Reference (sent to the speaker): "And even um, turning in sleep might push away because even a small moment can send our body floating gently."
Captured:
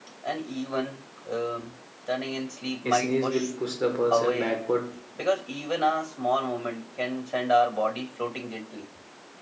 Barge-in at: 2.8 s

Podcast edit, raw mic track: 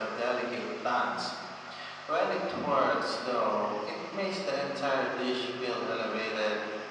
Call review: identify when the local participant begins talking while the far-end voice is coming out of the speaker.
none

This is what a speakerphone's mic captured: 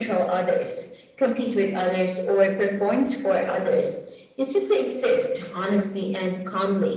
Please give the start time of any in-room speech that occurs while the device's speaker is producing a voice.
none

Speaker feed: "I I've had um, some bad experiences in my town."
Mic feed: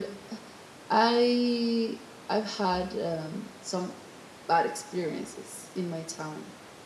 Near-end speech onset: none

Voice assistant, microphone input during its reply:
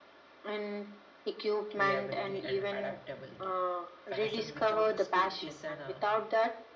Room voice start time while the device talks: 1.7 s

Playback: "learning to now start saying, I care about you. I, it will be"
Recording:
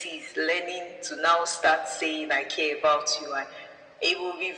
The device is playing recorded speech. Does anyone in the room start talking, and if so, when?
none

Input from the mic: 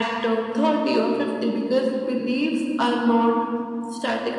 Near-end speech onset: none

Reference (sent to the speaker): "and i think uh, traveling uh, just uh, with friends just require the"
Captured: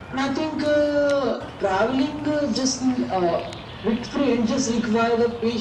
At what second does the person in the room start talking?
none

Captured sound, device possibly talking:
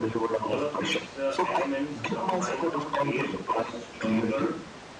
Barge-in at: 0.4 s

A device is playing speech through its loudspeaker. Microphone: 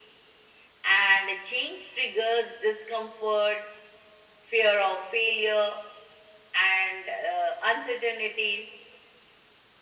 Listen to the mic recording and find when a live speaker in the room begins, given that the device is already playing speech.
none

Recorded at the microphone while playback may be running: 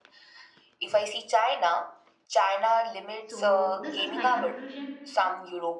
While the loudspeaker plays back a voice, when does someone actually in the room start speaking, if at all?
3.2 s

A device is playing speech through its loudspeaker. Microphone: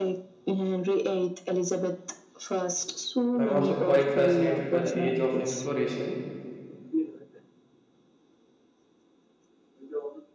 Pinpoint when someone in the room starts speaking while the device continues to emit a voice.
3.4 s

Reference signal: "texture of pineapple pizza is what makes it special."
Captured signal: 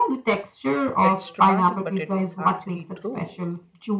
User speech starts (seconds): 1.0 s

